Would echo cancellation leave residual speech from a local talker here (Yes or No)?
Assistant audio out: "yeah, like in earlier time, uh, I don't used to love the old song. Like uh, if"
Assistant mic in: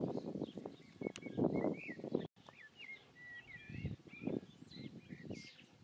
No